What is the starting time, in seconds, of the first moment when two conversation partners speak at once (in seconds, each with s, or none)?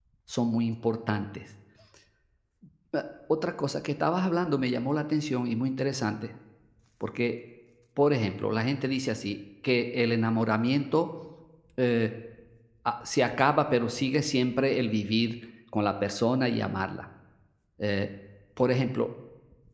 none